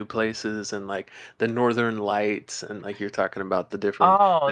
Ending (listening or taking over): taking over